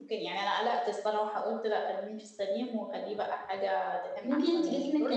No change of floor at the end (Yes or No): No